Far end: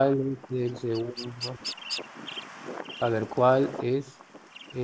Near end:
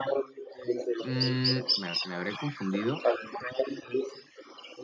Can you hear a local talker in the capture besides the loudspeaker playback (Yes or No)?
Yes